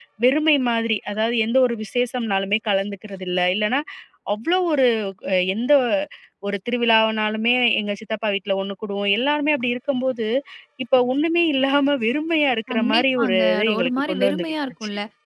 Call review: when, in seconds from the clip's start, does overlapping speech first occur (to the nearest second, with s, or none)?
13 s